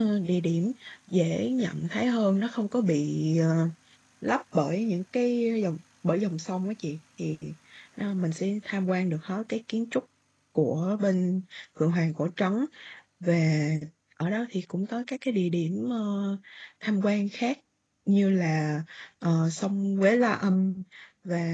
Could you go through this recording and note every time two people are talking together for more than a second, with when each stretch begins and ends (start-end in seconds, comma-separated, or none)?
none